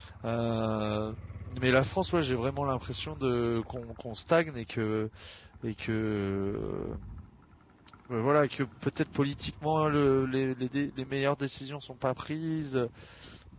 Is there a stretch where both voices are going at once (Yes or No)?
No